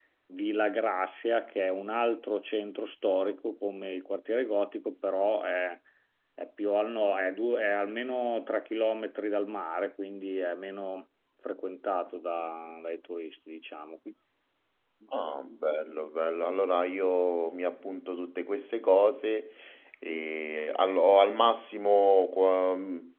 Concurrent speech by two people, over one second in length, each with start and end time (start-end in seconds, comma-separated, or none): none